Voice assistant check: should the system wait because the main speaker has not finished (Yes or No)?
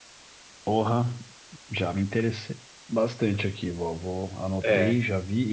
Yes